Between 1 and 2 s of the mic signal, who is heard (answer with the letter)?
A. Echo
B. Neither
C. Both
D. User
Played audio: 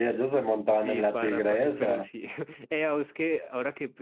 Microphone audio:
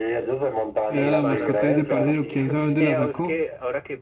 C